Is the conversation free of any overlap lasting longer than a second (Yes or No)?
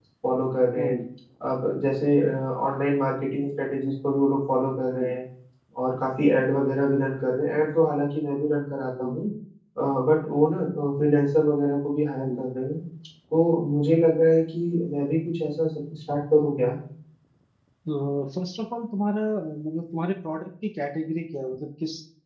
Yes